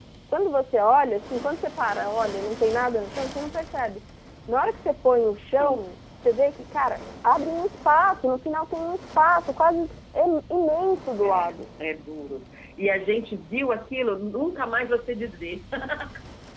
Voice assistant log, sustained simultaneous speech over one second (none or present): none